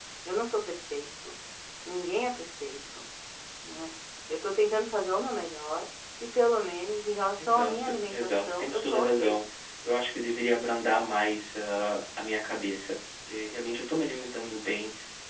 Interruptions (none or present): present